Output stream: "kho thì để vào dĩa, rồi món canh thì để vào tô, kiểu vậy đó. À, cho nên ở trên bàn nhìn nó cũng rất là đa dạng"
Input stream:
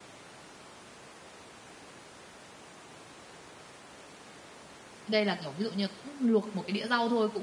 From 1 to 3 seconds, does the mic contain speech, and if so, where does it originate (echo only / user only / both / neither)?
neither